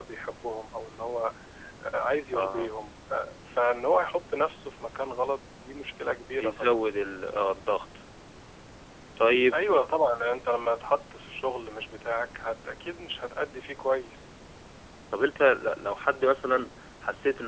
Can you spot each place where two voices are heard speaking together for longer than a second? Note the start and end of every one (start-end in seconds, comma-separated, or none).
none